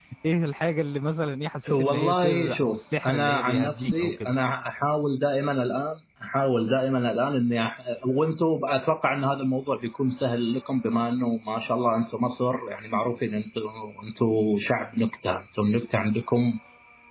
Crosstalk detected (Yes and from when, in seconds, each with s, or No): Yes, from 1.7 s